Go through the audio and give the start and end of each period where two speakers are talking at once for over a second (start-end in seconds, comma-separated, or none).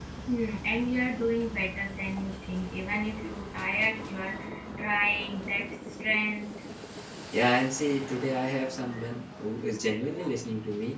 none